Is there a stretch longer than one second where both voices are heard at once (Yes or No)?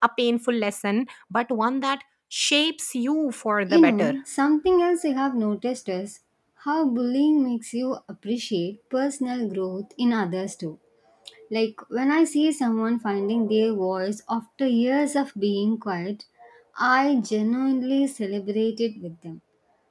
No